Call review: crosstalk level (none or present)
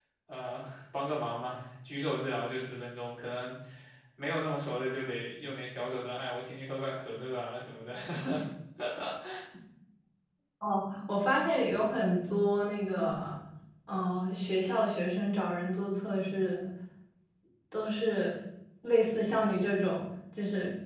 none